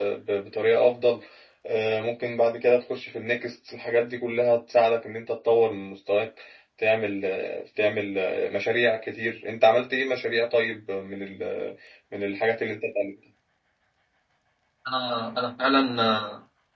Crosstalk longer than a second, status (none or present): none